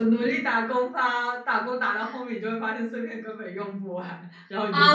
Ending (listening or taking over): taking over